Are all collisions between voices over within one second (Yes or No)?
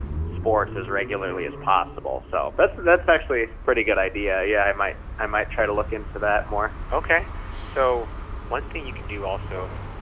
Yes